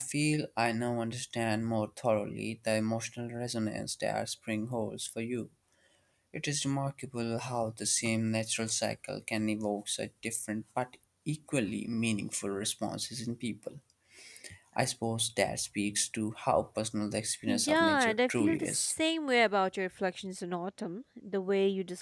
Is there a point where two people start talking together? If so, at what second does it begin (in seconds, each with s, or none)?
17.5 s